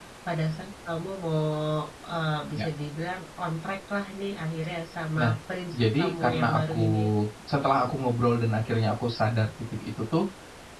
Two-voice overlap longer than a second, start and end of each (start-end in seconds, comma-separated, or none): 5.7-7.0